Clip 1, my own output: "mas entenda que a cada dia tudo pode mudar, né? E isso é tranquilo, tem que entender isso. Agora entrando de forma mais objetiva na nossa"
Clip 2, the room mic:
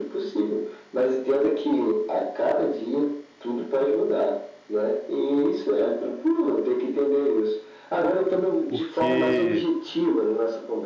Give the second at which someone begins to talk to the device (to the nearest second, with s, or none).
9 s